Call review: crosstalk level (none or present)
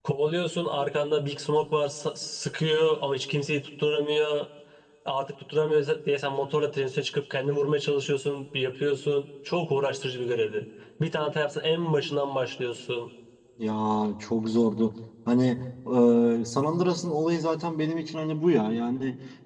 none